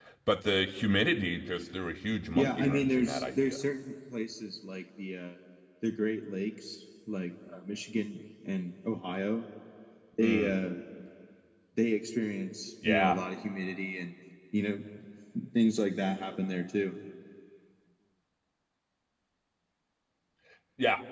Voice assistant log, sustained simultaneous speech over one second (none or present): present